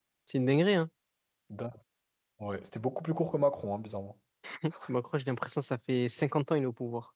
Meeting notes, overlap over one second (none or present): none